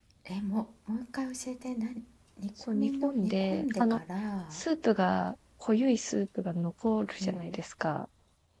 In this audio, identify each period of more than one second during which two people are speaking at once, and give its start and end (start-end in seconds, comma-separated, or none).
2.7-4.0